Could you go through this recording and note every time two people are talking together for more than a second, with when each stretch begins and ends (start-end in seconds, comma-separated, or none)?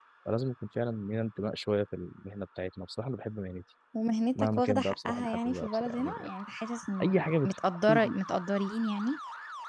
4.3-6.3